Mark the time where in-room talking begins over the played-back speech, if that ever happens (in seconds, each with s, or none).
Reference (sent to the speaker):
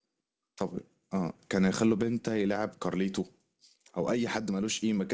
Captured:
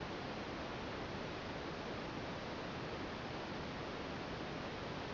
none